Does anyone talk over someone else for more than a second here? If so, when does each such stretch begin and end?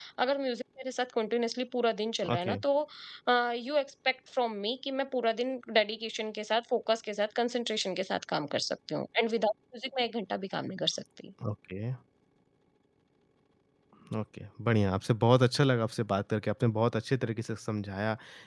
none

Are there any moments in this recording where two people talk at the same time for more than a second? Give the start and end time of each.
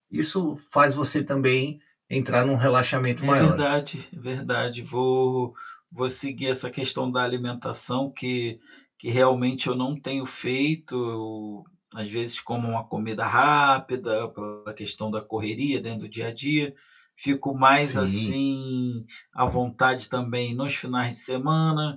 none

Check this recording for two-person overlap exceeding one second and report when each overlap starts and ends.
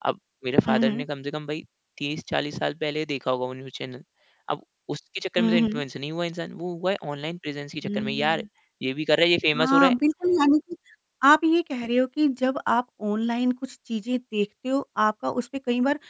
none

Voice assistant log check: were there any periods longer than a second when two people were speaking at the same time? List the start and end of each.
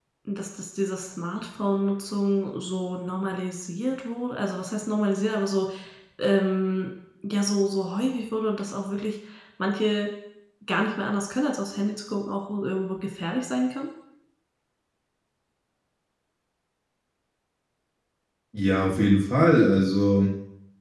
none

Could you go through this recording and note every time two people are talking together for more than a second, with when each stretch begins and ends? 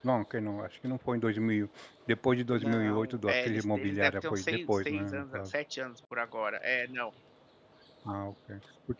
2.5-5.4

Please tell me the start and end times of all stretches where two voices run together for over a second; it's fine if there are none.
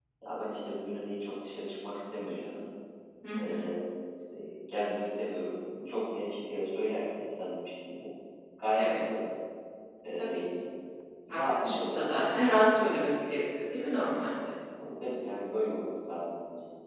11.3-12.7

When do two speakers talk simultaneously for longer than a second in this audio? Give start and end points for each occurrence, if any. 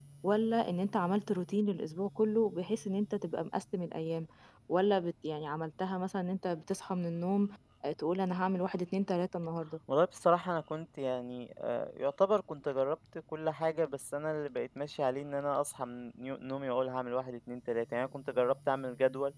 none

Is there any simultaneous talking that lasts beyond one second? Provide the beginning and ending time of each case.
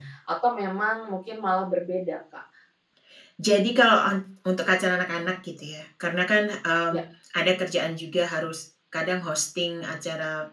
none

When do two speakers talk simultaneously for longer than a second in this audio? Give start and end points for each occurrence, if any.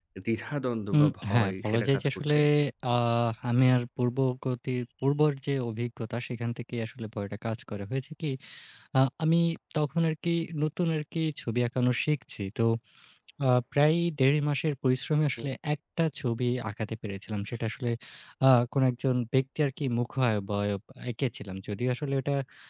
1.0-2.4

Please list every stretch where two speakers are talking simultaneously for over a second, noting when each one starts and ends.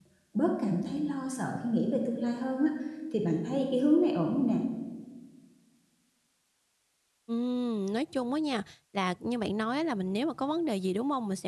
none

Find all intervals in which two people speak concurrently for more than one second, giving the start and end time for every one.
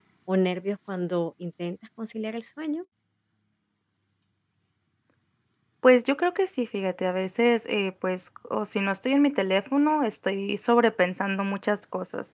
none

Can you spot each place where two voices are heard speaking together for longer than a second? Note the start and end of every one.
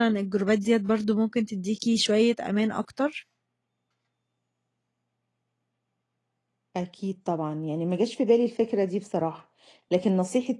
none

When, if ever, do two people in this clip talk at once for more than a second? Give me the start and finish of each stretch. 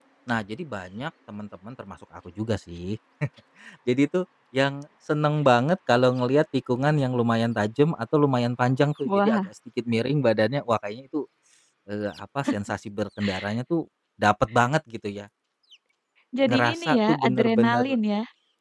16.4-17.9

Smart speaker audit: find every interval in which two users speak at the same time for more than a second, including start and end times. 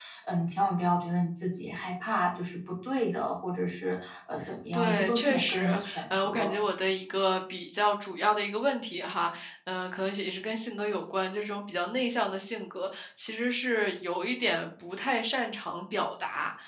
4.7-6.5

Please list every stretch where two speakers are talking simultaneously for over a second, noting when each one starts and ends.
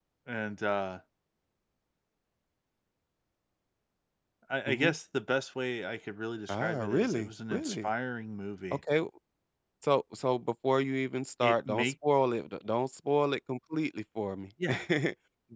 6.5-7.9

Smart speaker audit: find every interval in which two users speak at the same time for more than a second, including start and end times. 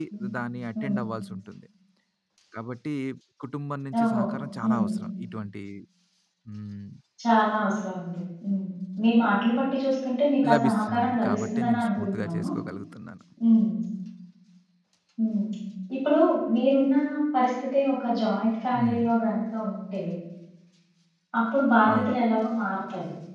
10.5-12.4

